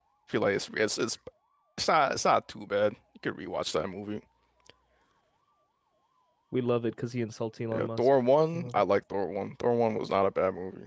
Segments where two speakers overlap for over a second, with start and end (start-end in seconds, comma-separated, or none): none